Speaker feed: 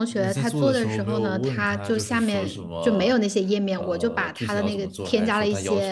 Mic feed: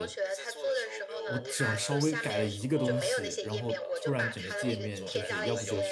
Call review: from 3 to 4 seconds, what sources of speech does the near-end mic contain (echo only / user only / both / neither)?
both